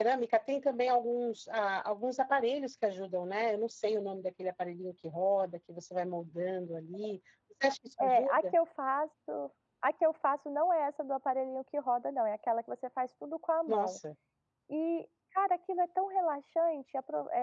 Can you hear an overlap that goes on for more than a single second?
No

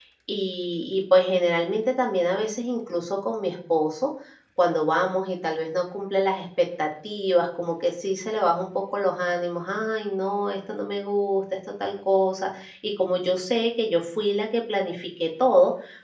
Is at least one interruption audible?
No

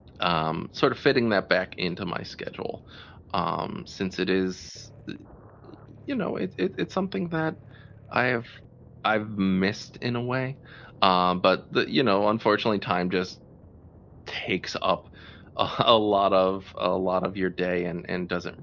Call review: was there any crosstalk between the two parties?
No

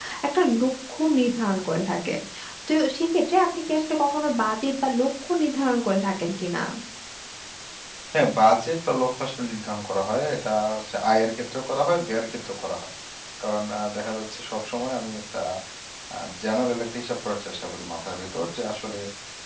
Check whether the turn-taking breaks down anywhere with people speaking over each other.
No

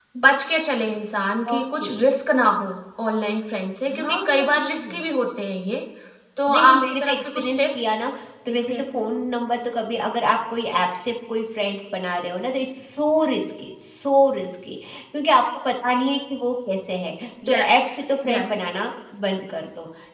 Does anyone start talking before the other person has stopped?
Yes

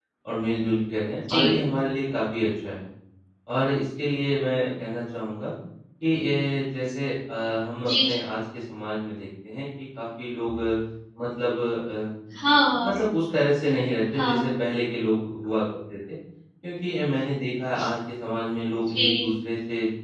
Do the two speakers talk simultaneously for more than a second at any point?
No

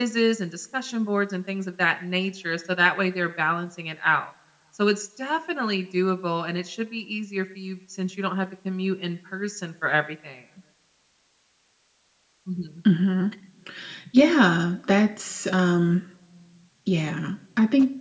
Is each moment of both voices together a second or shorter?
Yes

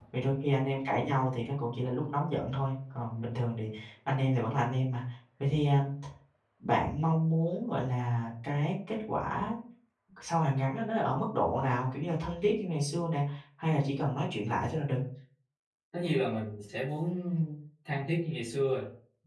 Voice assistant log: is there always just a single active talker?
Yes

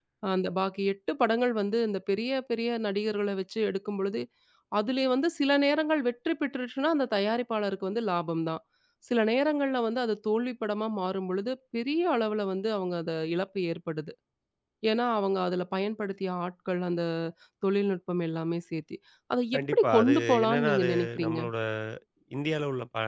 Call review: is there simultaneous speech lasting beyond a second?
Yes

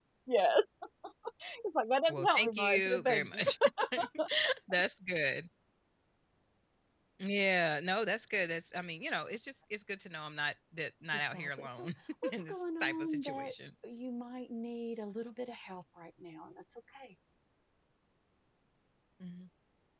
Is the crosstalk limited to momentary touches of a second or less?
No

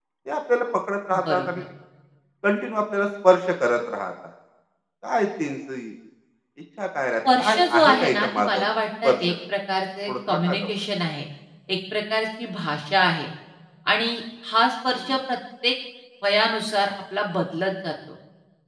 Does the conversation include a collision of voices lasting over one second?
Yes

